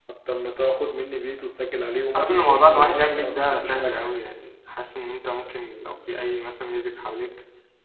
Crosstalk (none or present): present